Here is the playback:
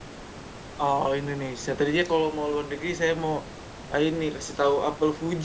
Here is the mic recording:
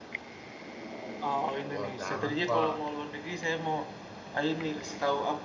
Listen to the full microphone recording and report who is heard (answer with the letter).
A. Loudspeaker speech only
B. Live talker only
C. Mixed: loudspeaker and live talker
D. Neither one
C